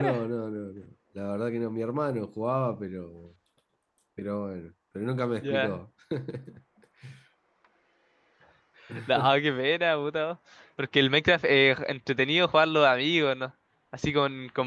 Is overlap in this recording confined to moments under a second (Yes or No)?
Yes